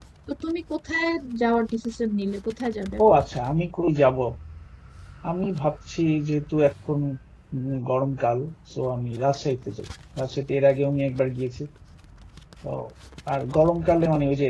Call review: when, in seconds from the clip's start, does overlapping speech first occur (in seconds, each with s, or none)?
none